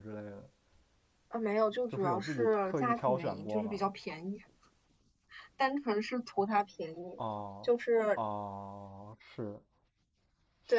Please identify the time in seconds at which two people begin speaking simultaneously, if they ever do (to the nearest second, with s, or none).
2 s